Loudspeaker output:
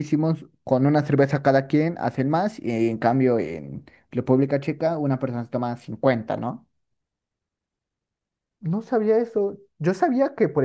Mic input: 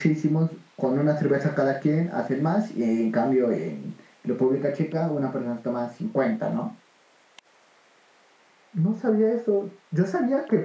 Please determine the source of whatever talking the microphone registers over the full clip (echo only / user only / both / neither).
echo only